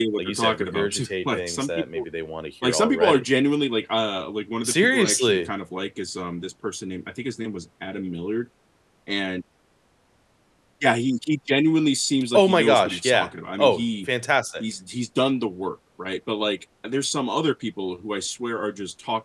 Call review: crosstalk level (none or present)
present